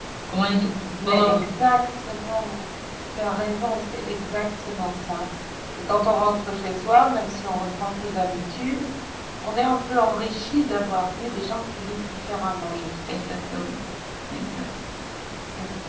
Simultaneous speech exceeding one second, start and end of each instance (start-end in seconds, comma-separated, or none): none